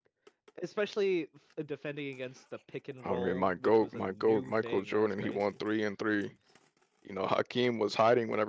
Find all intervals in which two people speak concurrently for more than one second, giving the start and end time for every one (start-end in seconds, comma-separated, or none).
3.0-5.6